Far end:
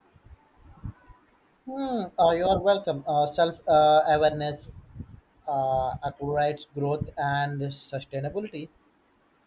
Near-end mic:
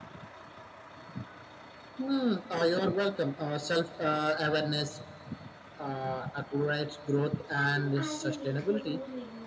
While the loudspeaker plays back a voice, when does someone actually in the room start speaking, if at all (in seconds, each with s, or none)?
7.5 s